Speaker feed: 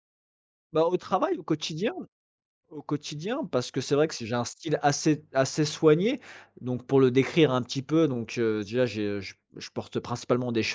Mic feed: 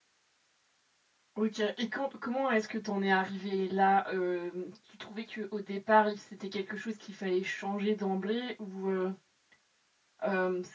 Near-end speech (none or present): present